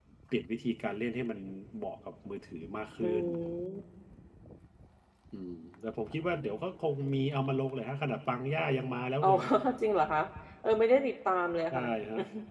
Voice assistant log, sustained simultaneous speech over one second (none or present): none